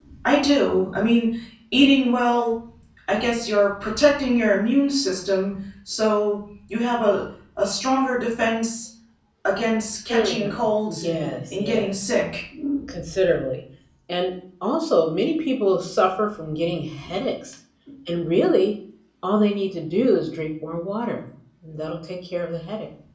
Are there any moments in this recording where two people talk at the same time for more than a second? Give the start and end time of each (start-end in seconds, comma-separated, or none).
10.9-12.1